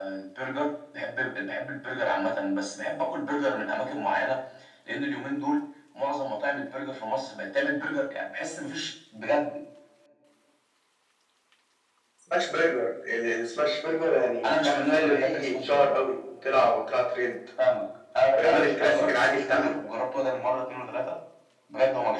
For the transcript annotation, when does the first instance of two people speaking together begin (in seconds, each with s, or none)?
14.4 s